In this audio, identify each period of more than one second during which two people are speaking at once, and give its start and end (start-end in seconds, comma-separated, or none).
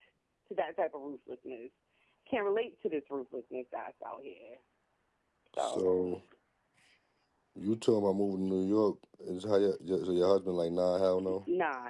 none